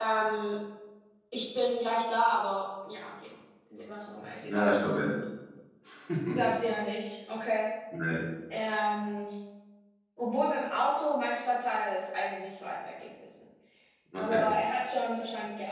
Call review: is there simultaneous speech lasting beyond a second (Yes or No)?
No